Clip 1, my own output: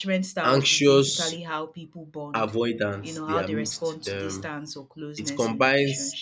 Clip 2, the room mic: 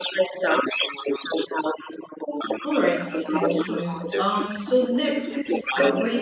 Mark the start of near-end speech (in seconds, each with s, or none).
2.6 s